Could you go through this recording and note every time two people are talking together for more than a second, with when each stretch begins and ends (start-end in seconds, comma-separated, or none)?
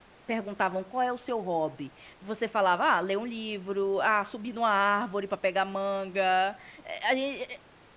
none